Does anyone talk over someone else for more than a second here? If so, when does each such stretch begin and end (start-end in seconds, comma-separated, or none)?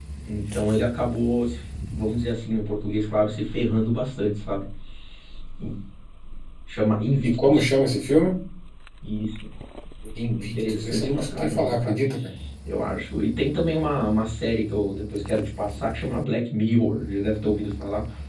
10.4-12.0